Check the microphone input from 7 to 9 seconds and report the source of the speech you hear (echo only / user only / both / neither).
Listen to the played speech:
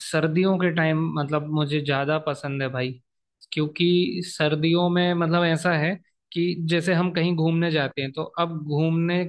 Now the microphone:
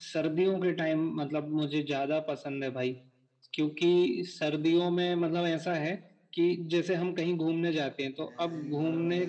both